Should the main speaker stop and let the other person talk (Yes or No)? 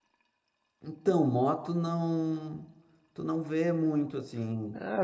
Yes